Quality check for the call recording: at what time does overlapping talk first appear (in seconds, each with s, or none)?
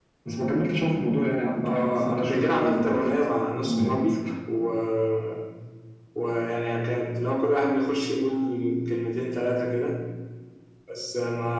1.6 s